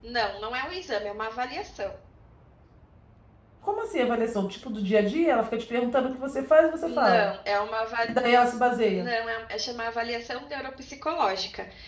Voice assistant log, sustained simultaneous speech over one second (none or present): none